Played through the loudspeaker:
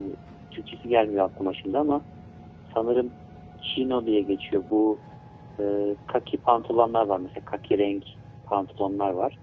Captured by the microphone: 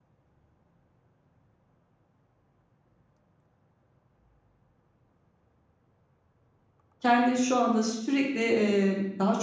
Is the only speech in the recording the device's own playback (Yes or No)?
No